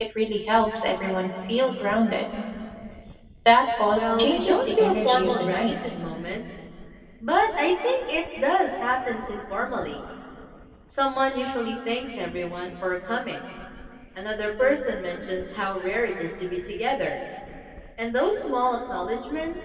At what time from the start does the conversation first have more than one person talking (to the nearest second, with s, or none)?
4 s